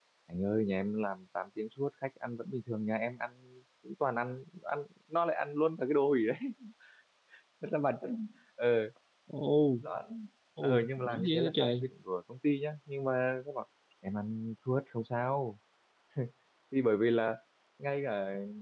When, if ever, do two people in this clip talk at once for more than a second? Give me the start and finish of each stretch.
10.6-11.9

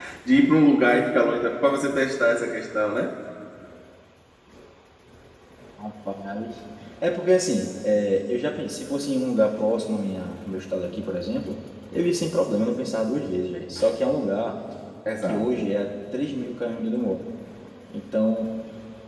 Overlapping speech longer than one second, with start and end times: none

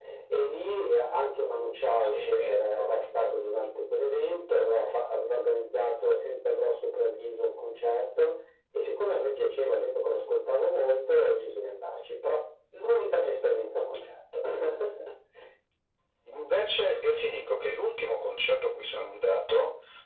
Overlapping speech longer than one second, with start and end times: 2.0-3.4

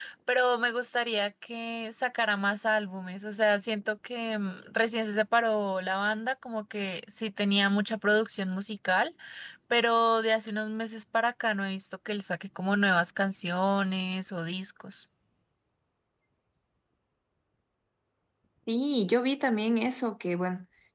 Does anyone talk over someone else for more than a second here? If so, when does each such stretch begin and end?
none

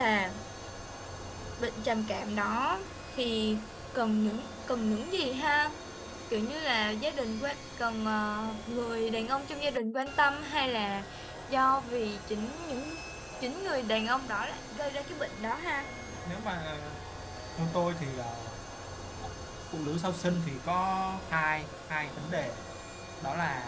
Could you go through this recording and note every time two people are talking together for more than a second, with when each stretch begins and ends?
none

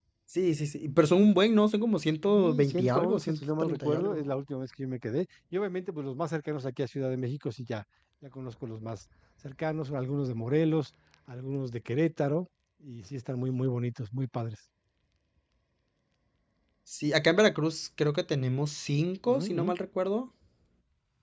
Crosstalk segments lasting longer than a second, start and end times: 2.2-4.2

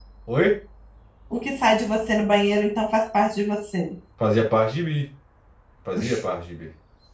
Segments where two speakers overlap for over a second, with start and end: none

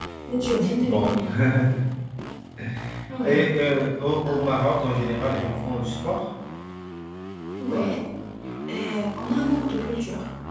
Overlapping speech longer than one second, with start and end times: none

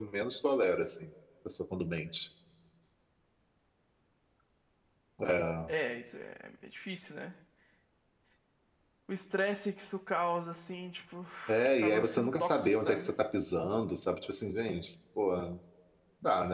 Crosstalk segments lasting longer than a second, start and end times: 11.7-13.1

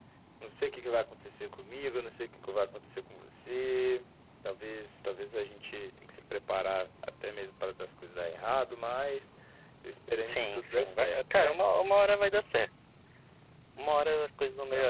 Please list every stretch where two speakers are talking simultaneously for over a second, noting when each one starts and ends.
10.2-11.6

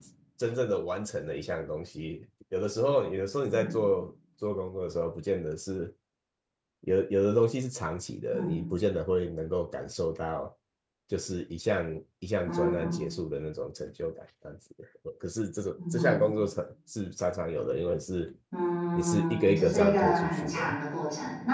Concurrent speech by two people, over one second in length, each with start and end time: 18.9-20.8

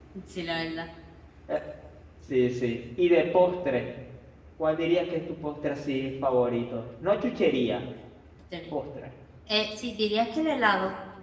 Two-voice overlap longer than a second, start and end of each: none

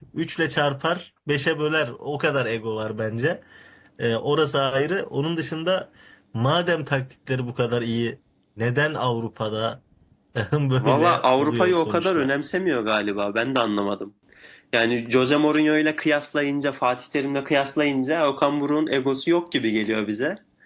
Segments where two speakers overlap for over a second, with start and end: 10.8-12.3

